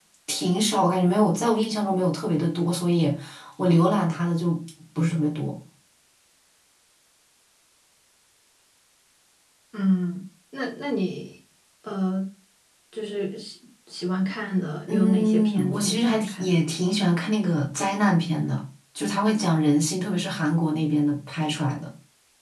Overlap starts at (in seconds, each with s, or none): 14.9 s